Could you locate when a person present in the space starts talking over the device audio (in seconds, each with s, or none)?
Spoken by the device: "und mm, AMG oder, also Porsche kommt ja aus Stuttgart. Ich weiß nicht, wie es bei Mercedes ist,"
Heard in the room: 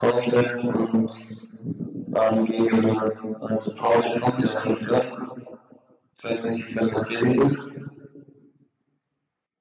none